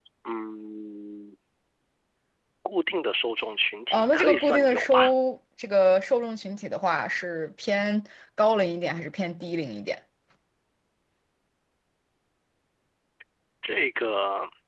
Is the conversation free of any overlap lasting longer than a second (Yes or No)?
No